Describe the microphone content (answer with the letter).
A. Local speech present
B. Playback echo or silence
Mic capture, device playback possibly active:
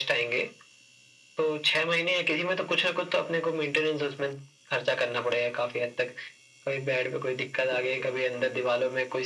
B